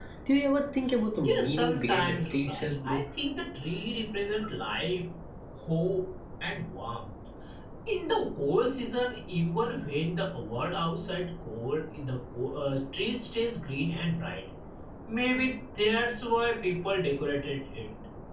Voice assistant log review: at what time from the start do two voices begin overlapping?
1.2 s

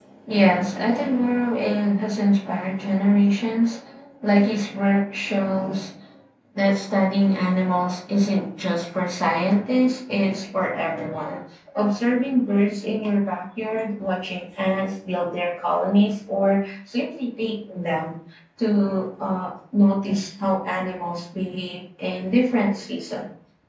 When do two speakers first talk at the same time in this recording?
none

